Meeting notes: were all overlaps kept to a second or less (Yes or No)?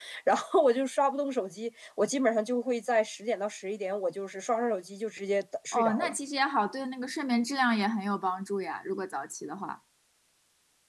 Yes